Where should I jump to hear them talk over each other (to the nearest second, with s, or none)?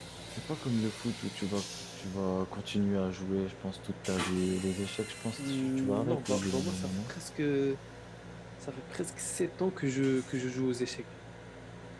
5 s